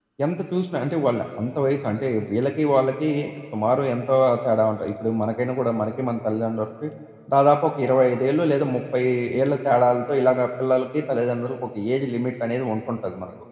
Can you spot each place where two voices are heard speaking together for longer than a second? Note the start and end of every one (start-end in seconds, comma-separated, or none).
none